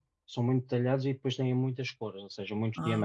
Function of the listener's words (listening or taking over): listening